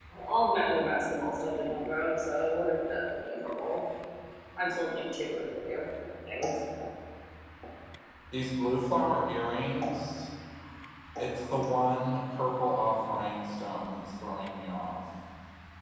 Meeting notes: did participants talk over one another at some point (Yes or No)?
No